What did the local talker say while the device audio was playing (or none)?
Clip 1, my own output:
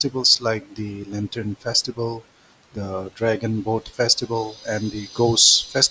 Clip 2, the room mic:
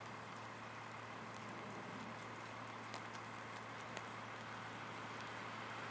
none